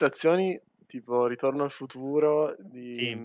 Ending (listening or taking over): listening